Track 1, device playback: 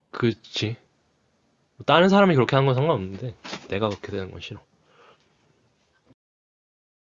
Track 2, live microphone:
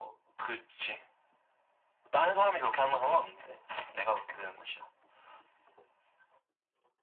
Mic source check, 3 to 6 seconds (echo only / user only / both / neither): echo only